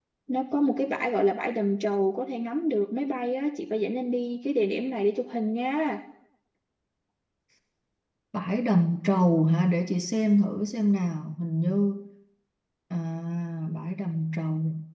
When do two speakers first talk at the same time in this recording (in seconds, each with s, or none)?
none